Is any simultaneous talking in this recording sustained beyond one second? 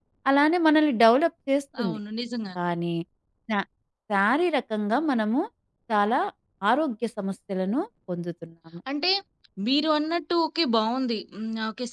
No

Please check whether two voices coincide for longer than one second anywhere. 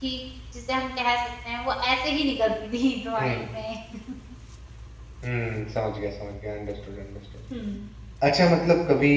No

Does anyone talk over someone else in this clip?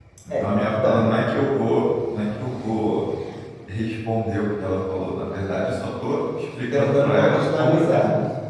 Yes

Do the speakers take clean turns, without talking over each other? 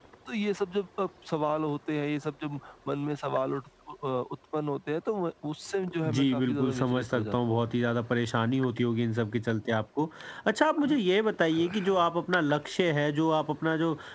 No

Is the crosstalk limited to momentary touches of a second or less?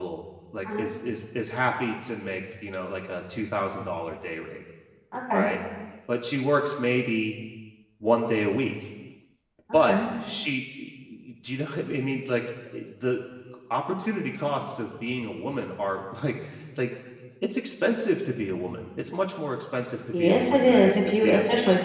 No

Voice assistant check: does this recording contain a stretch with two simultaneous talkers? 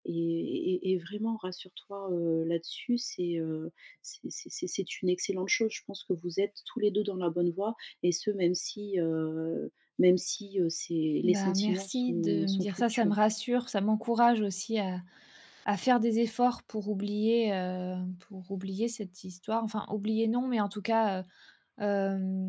Yes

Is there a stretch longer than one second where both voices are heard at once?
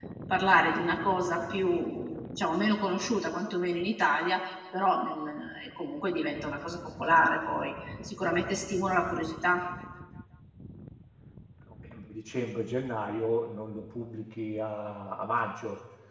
No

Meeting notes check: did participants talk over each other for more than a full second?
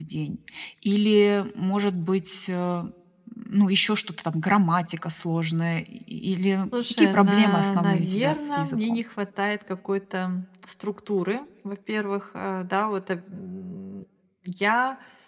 Yes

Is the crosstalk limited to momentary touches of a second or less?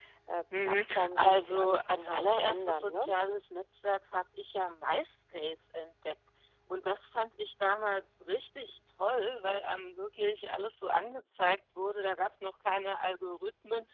No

